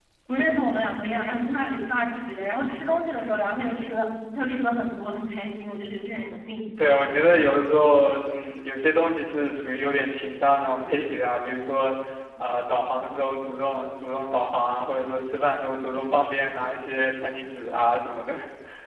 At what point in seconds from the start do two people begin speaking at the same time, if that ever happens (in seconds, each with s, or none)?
none